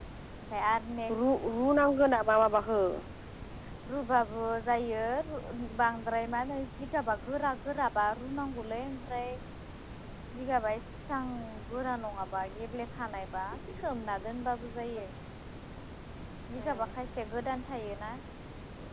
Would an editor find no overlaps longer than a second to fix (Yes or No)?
Yes